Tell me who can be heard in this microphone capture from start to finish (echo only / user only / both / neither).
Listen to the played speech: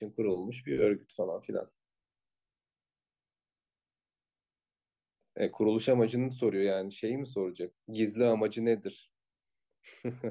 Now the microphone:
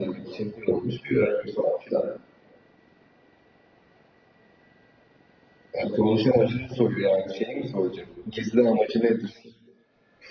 echo only